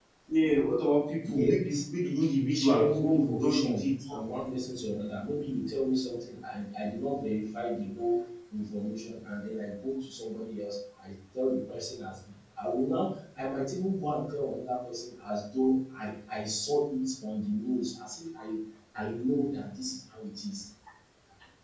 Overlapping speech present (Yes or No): Yes